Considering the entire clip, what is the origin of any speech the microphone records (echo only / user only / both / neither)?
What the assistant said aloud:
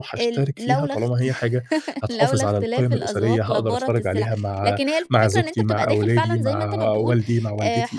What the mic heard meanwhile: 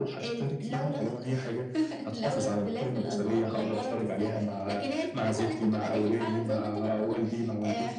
both